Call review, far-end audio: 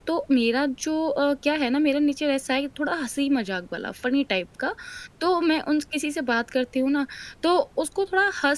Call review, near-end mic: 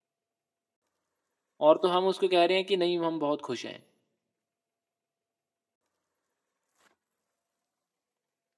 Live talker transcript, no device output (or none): और तो हम उसको कह रहे हैं कि नहीं हम बहुत खुश हैं